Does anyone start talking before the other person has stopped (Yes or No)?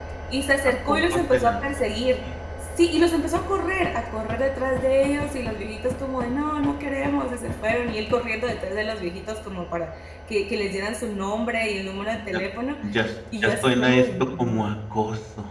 Yes